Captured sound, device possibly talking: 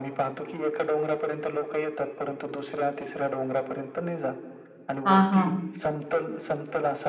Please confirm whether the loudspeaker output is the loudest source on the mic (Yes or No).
No